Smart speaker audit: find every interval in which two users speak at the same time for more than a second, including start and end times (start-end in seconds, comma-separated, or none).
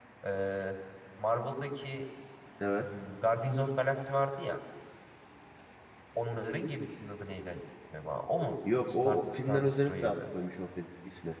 8.9-10.2